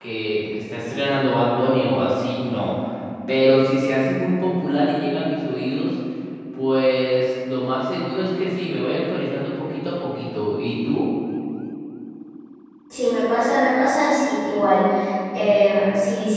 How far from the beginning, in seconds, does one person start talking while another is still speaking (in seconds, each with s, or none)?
none